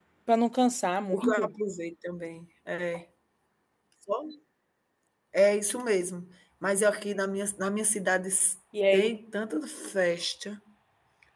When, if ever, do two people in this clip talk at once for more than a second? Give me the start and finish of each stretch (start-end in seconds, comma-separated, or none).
none